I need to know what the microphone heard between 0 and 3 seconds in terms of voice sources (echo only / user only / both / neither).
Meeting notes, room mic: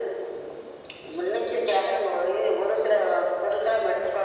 echo only